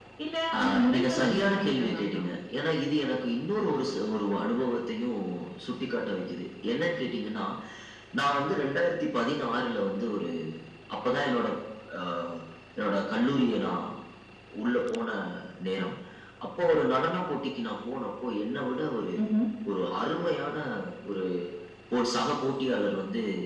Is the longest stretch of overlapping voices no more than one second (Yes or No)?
No